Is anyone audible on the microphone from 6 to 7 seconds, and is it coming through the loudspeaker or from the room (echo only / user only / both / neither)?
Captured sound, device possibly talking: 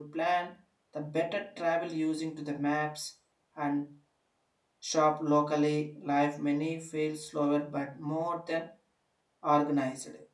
user only